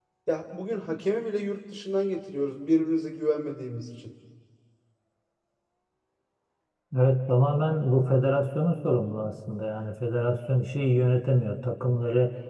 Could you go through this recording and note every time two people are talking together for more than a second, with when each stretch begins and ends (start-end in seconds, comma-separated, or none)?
none